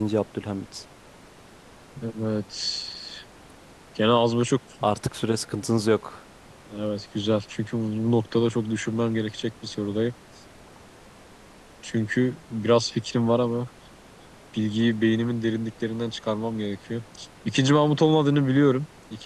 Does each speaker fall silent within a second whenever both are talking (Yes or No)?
Yes